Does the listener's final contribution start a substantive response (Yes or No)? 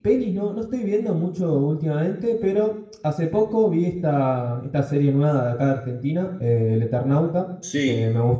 No